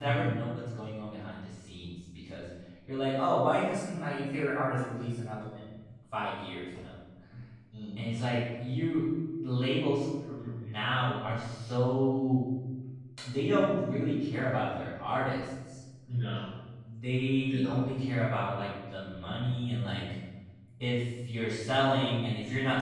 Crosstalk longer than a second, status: none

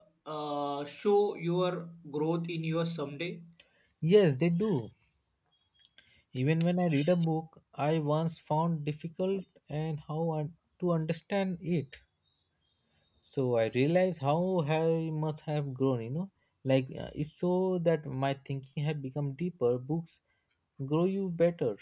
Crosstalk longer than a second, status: none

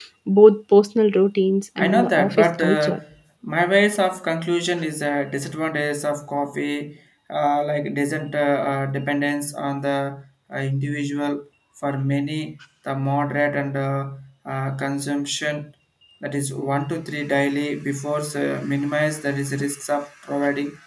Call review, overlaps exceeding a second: present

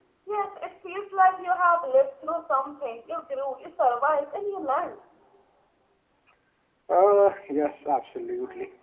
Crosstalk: none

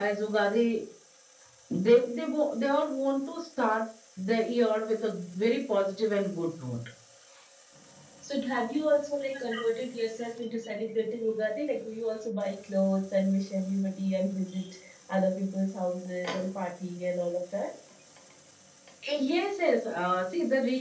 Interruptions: none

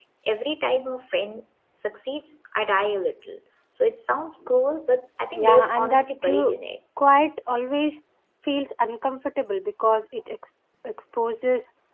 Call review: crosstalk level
present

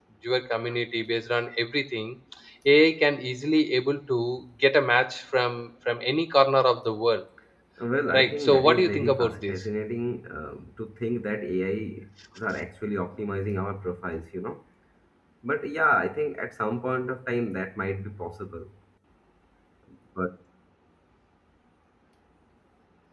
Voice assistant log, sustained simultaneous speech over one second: present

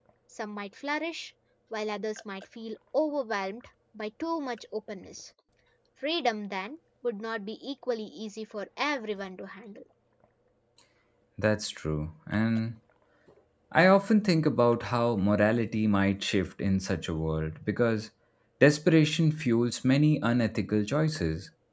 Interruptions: none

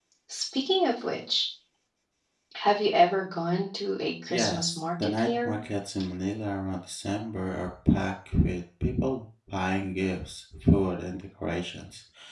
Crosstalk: present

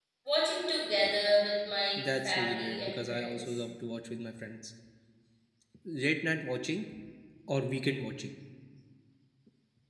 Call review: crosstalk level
present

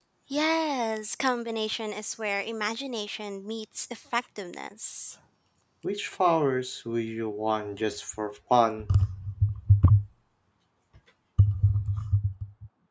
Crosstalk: none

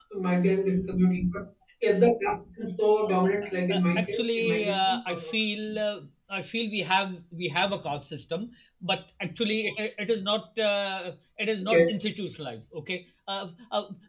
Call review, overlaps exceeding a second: present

